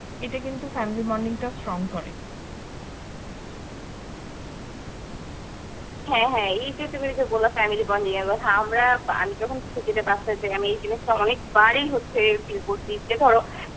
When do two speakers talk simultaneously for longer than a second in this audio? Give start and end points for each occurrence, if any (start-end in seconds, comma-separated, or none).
none